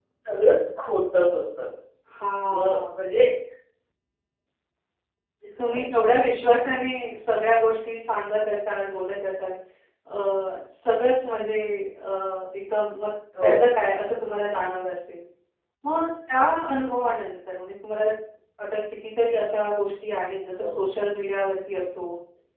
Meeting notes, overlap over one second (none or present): none